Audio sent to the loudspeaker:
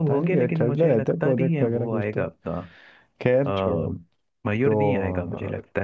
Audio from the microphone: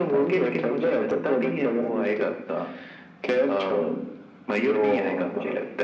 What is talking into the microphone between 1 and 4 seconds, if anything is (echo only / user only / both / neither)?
echo only